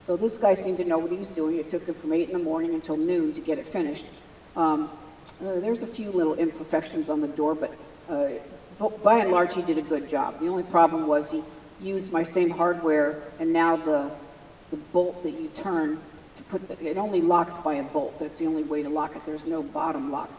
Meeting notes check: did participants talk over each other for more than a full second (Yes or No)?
No